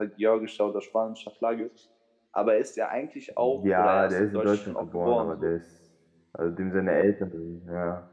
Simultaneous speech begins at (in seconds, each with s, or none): 3.4 s